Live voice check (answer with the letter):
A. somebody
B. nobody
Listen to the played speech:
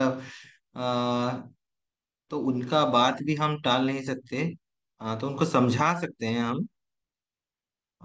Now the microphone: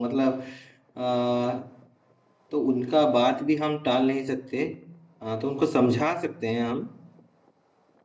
B